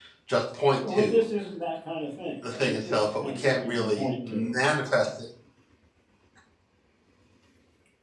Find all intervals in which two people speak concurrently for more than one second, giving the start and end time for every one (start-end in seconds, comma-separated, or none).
2.5-4.6